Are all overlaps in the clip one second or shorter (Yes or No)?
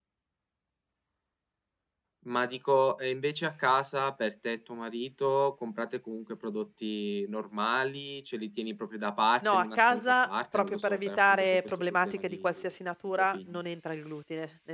No